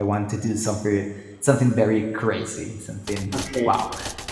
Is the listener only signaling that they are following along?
Yes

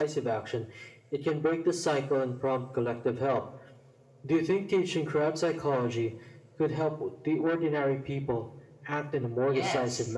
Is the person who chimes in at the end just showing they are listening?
No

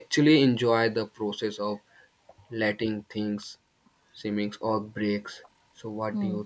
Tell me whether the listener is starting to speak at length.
Yes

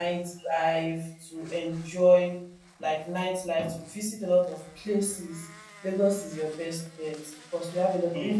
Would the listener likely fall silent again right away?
Yes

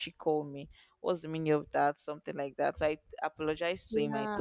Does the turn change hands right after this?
No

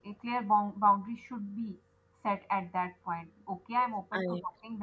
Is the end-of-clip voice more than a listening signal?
No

